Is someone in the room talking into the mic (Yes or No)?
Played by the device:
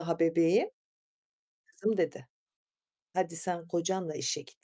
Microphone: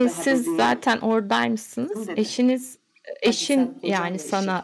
Yes